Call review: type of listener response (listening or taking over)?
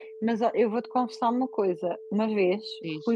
listening